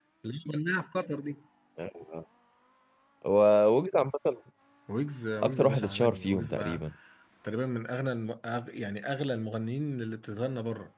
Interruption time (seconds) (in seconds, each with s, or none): 5.4 s